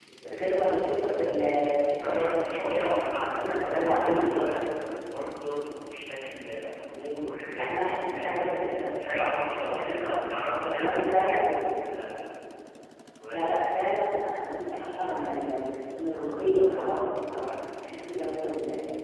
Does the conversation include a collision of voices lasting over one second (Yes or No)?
Yes